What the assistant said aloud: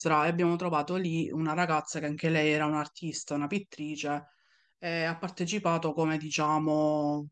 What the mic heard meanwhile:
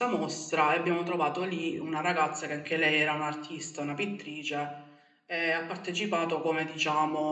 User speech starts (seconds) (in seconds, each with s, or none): none